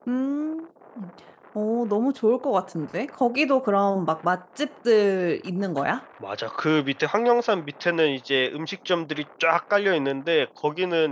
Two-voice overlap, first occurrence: none

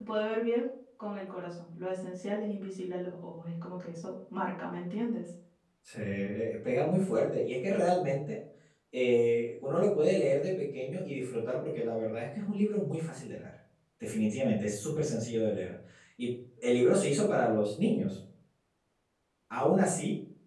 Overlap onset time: none

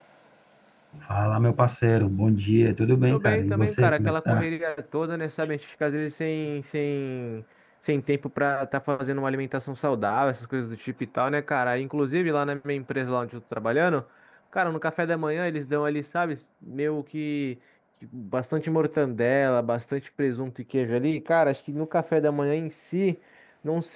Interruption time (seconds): 3 s

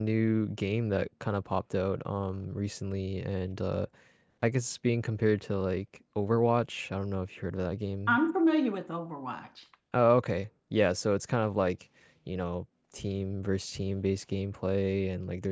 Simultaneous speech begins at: none

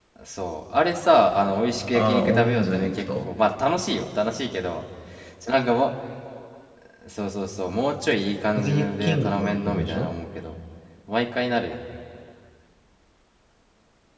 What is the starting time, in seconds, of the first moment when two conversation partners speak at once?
2 s

